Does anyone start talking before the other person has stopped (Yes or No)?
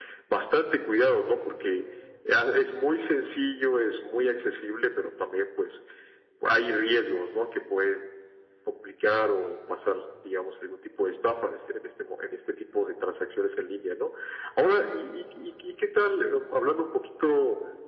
No